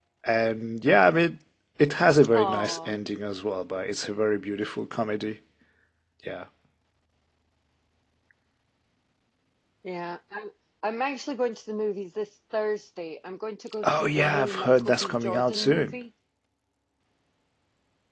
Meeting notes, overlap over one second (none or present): present